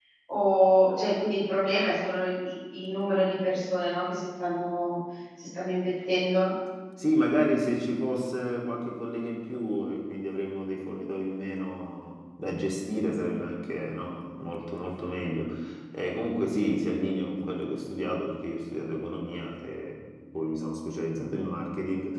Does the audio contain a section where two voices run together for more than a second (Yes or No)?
No